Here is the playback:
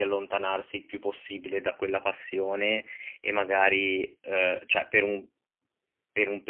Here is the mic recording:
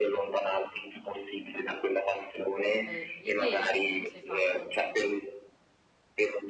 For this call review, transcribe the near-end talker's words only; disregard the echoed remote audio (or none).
Ho capito. E lì che indirizzo hai fatto?